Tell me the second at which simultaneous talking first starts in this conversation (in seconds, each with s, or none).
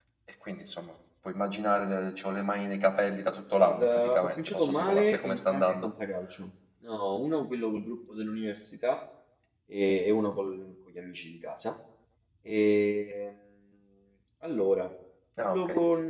3.6 s